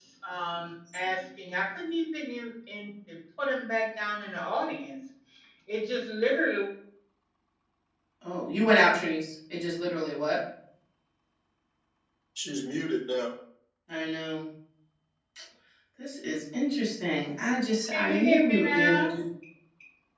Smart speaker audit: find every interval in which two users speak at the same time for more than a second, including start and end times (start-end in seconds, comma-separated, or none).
17.9-19.1